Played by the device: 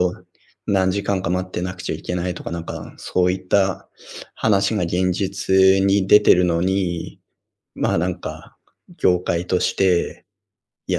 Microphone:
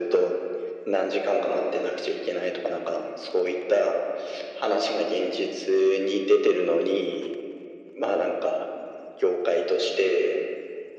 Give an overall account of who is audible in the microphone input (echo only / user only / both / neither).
echo only